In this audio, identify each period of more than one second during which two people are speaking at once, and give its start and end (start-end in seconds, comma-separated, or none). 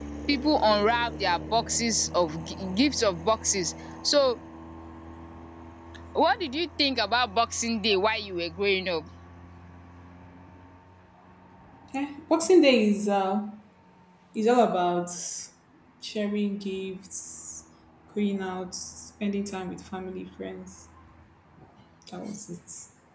none